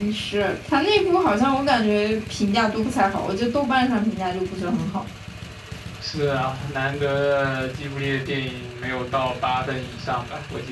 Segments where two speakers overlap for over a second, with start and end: none

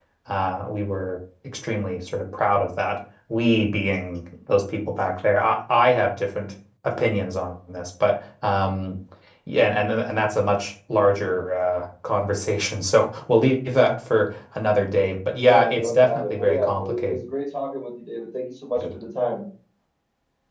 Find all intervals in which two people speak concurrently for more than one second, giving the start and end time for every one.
15.4-17.2

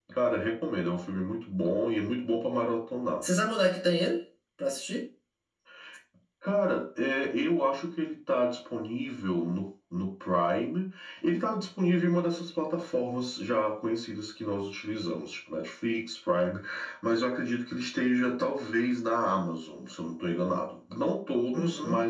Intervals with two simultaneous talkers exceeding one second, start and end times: none

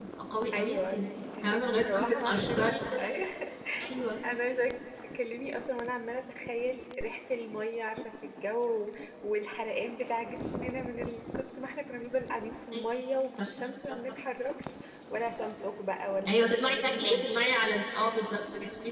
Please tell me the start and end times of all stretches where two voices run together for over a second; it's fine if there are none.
1.4-3.1, 16.3-17.5

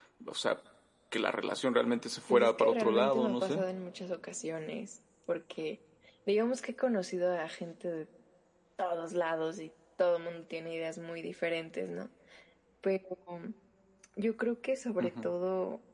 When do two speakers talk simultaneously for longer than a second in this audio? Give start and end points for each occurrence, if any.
2.3-3.6

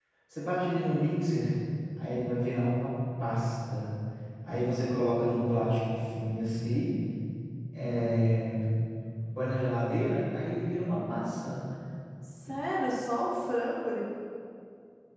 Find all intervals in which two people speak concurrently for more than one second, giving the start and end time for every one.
none

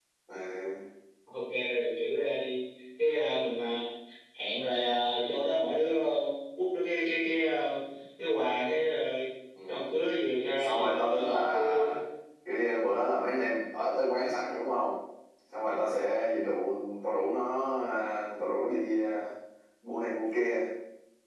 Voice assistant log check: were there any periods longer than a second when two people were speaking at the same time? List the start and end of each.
10.6-12.0

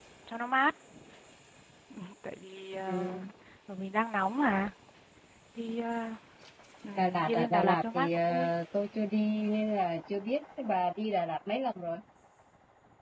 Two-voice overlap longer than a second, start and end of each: 7.0-8.5

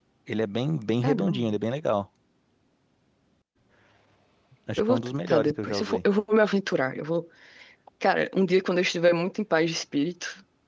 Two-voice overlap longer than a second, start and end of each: 4.8-6.0

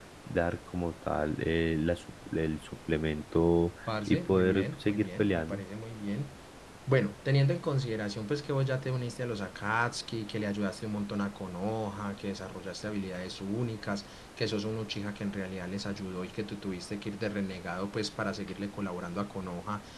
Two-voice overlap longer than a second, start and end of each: 4.1-5.6

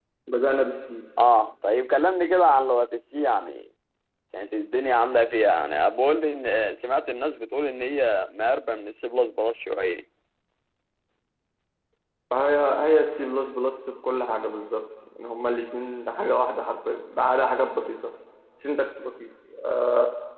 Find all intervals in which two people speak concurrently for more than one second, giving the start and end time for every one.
none

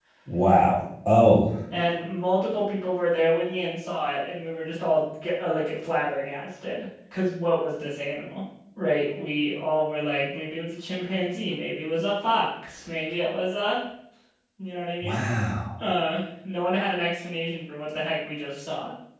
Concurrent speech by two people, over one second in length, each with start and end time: none

